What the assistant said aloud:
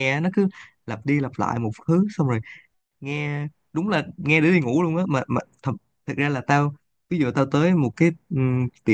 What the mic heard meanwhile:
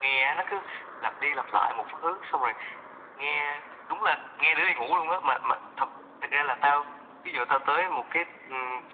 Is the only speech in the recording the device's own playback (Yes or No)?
Yes